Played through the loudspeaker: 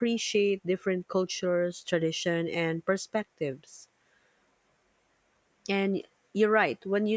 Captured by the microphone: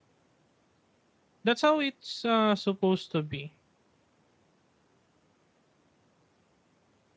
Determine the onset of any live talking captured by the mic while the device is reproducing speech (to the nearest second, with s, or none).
1 s